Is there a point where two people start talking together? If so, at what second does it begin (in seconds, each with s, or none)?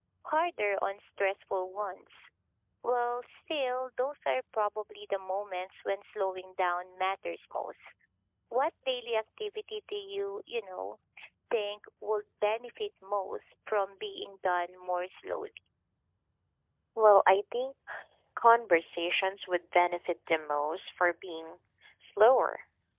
none